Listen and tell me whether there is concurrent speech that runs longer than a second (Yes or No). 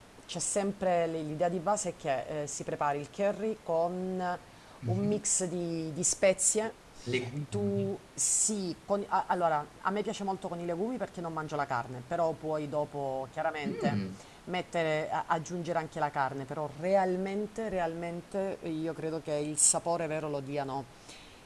No